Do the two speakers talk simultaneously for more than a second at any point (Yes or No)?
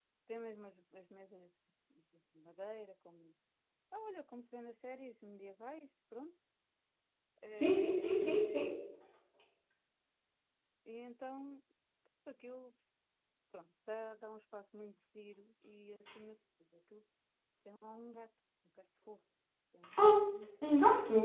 No